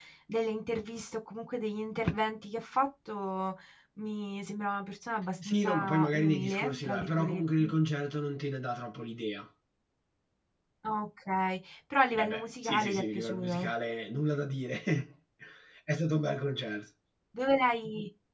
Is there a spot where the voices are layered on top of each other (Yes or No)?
Yes